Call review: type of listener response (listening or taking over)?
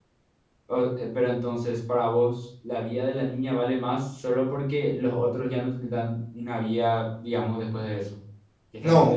taking over